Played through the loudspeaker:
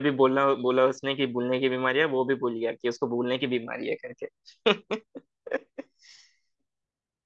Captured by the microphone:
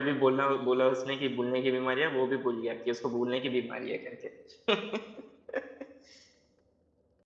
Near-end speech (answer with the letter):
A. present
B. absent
B